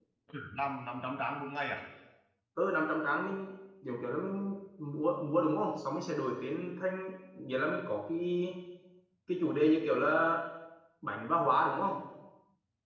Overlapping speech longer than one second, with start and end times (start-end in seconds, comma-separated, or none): none